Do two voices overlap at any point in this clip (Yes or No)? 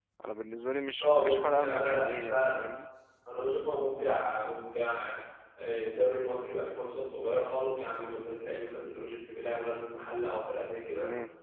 Yes